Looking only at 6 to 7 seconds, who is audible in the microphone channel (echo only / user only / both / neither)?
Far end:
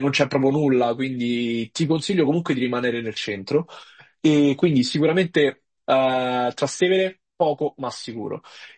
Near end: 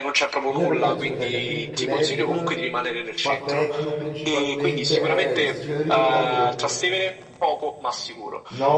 both